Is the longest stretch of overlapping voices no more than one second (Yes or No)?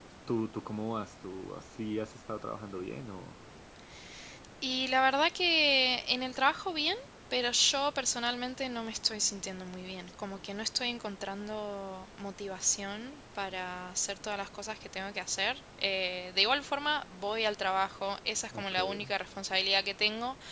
Yes